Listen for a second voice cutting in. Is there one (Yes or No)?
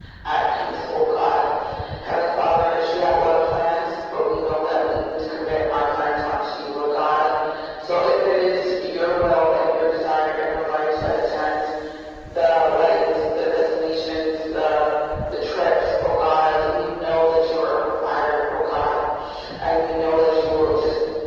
No